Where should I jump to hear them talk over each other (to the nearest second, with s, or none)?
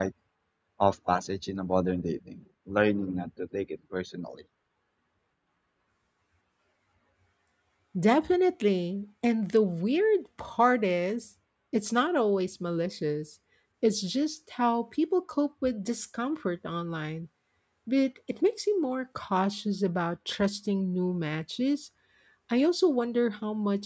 none